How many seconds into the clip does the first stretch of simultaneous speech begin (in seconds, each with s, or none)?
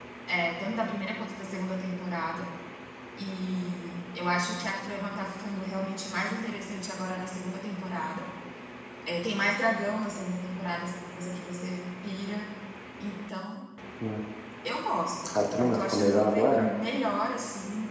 15.3 s